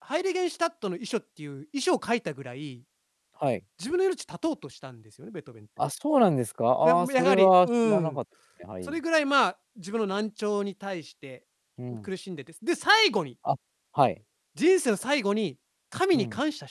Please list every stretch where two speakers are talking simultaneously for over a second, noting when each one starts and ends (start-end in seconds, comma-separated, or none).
6.8-8.2